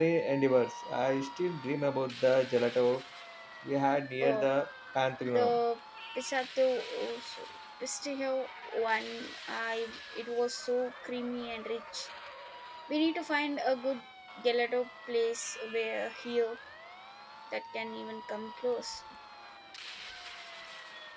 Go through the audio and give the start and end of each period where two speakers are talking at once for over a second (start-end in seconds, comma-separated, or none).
none